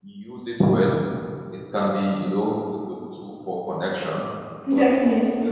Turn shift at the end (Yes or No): No